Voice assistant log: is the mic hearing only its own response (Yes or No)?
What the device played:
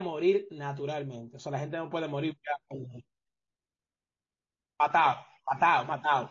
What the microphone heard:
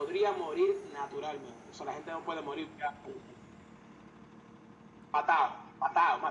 Yes